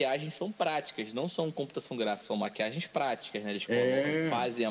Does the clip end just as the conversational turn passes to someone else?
No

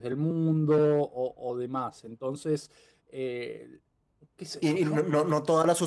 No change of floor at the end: No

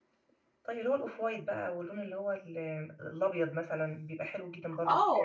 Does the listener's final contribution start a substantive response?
Yes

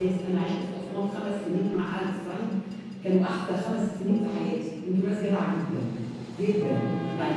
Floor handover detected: No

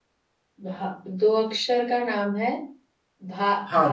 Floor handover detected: Yes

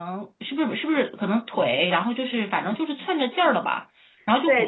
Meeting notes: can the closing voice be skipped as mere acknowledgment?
No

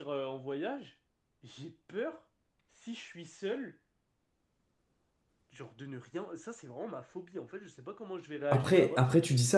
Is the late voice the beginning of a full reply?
Yes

